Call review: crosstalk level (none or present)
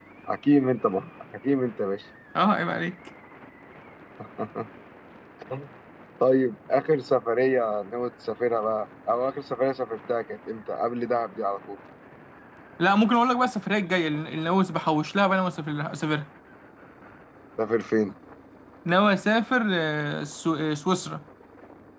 none